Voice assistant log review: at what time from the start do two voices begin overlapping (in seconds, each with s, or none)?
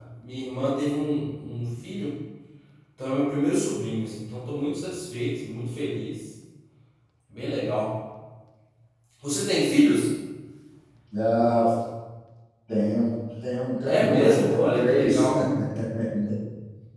13.8 s